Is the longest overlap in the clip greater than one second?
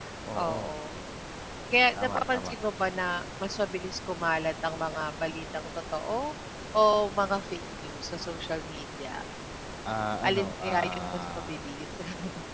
Yes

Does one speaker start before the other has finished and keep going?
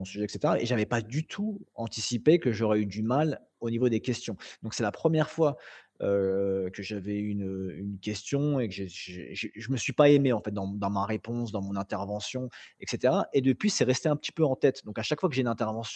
No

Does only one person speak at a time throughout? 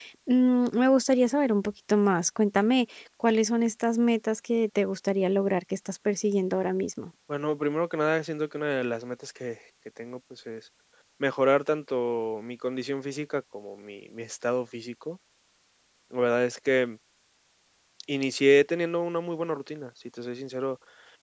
Yes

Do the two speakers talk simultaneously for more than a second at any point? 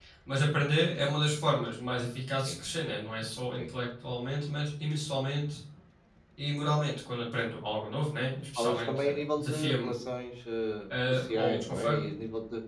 Yes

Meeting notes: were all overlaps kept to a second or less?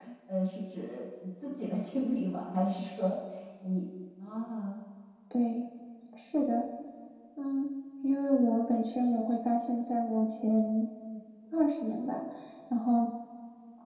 Yes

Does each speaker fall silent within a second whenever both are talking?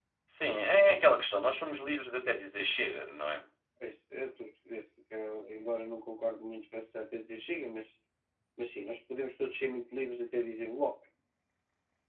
Yes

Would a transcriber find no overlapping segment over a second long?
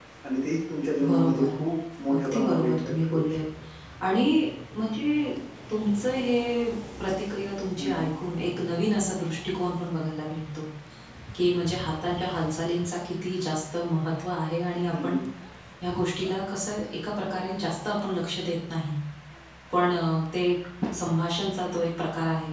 No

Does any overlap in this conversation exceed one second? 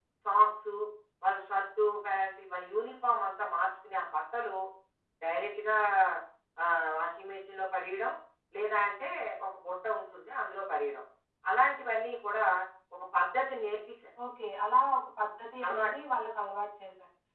No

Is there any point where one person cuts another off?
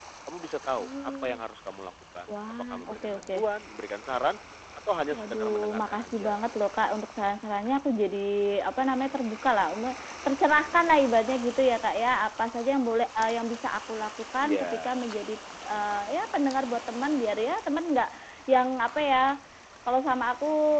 Yes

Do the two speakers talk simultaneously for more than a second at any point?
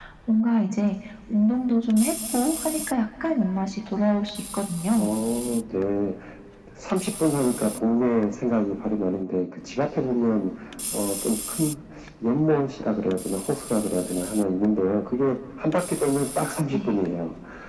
No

